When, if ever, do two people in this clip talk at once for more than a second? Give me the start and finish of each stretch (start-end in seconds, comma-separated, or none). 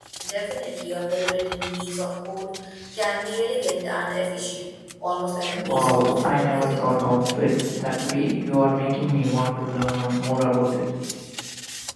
5.6-6.8